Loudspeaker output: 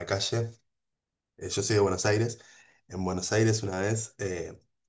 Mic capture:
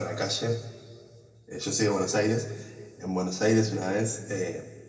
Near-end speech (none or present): none